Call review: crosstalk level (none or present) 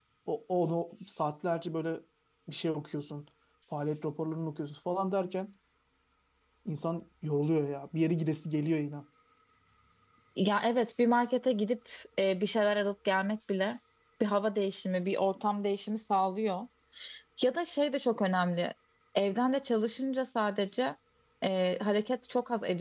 none